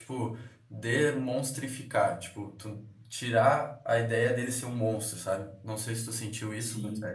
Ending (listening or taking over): taking over